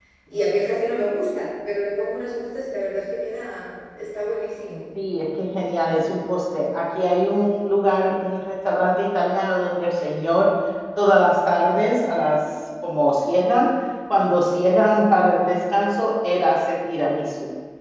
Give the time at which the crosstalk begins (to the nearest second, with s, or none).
none